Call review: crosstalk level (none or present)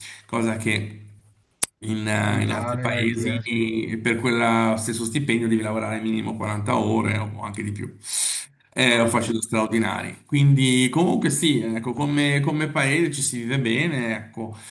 present